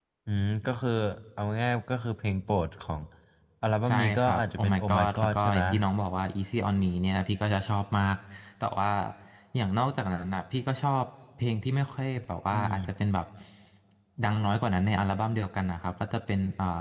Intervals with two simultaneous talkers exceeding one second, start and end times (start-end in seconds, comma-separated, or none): 3.9-5.6